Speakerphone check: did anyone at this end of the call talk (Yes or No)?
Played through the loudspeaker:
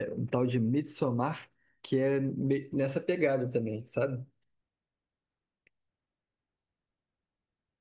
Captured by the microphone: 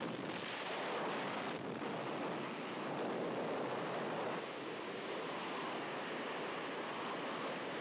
No